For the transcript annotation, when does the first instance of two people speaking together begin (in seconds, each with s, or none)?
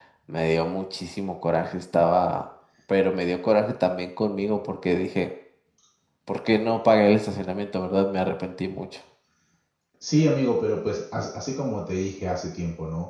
none